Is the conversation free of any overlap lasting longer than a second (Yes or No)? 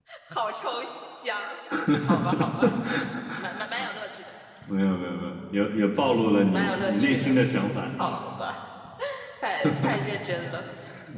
No